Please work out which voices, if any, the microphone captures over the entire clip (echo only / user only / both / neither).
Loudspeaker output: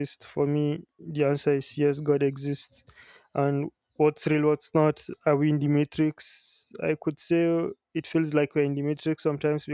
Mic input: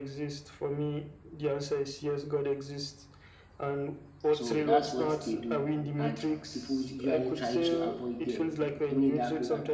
both